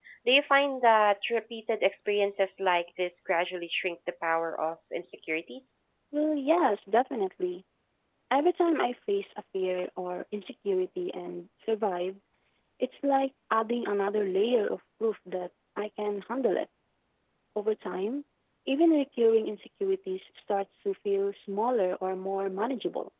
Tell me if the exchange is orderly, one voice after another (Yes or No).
Yes